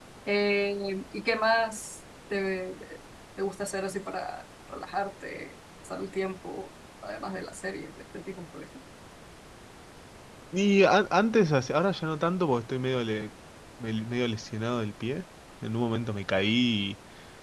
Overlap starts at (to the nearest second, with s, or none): none